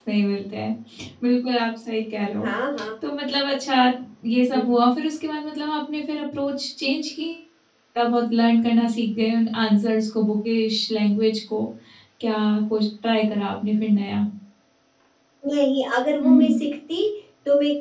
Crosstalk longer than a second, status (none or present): none